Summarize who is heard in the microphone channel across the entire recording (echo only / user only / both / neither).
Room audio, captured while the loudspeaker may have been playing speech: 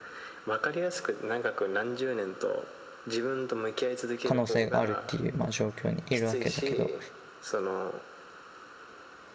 both